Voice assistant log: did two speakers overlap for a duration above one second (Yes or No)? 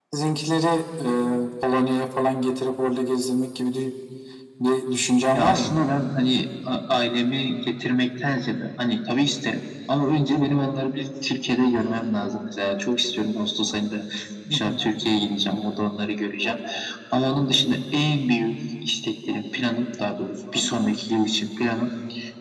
No